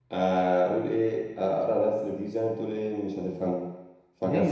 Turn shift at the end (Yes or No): Yes